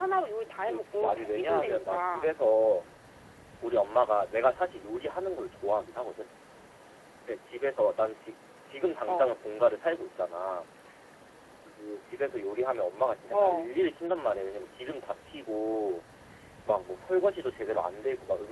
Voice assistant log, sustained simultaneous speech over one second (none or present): present